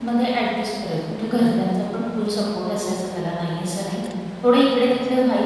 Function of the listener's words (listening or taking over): listening